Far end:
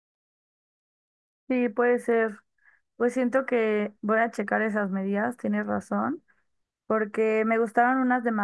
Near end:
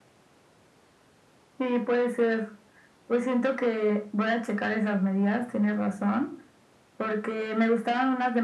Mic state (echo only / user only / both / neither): echo only